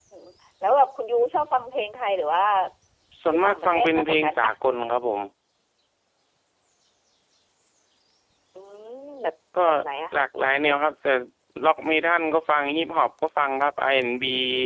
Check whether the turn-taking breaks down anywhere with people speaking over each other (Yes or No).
Yes